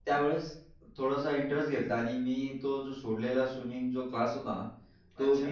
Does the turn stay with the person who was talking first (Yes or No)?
Yes